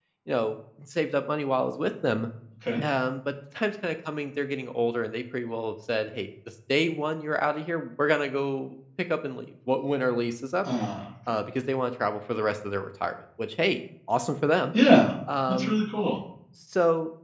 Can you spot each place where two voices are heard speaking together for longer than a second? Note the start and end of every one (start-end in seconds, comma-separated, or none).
none